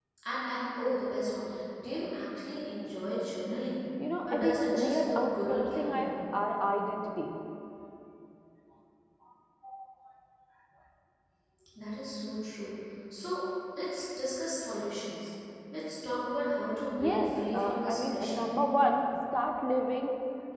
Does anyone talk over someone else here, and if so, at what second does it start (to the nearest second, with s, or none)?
4 s